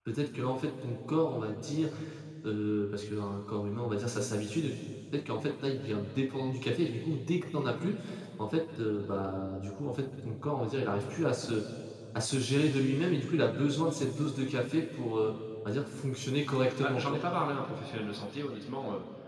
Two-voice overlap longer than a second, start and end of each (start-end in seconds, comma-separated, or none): none